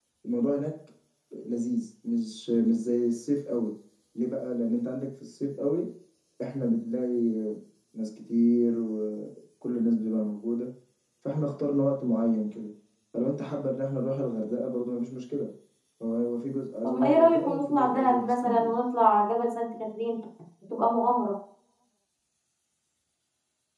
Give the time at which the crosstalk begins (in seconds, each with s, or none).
16.8 s